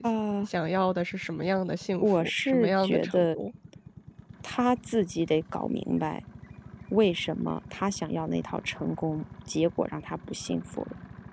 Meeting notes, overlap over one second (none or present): present